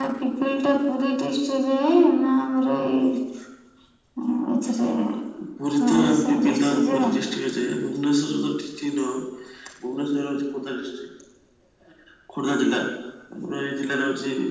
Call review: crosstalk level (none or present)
present